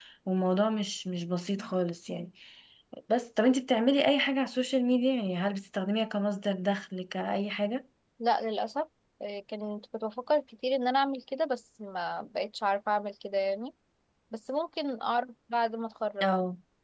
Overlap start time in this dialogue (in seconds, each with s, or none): none